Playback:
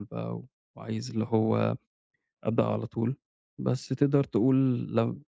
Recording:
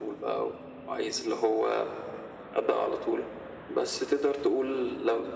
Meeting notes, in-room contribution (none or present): none